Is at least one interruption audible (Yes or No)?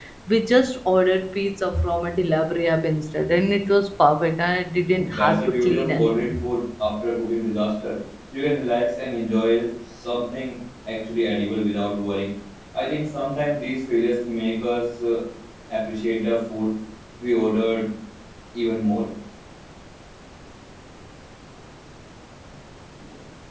Yes